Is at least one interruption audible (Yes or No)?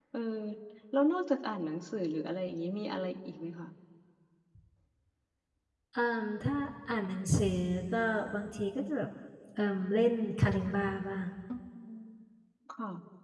No